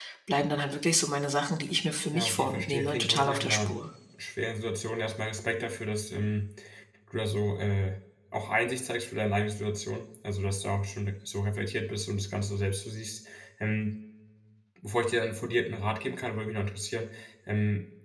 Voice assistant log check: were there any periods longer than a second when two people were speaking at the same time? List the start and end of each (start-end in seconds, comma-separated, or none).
2.1-3.8